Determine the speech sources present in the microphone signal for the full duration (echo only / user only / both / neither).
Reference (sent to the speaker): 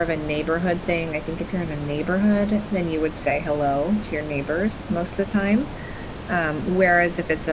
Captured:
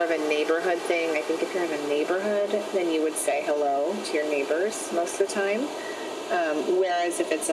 echo only